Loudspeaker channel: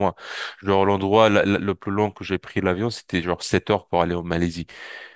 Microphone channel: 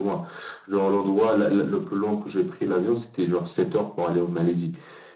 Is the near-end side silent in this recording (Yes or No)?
Yes